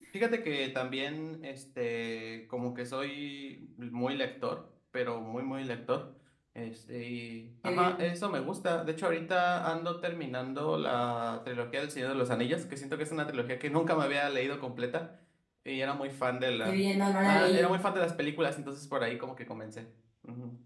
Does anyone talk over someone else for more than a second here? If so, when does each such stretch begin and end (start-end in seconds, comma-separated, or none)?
none